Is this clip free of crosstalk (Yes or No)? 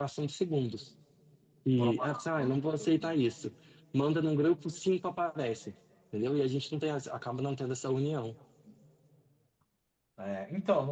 No